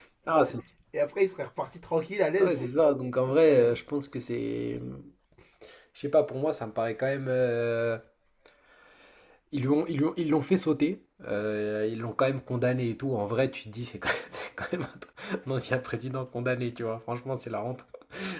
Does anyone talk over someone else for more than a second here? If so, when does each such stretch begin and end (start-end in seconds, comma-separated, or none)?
none